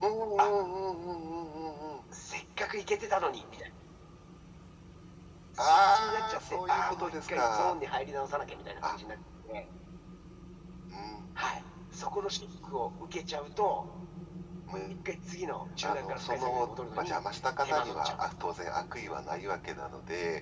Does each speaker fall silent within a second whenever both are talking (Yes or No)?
No